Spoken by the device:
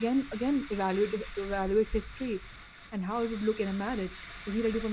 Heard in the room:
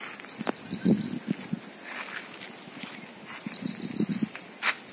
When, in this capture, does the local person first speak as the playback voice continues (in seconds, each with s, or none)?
none